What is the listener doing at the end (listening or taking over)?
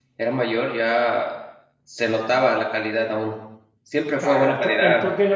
taking over